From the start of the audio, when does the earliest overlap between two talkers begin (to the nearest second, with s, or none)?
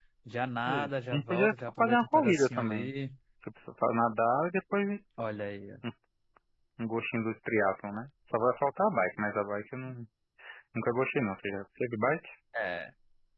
1 s